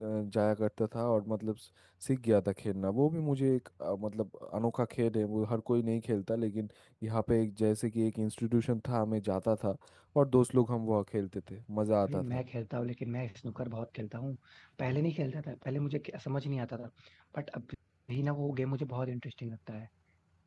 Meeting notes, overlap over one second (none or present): none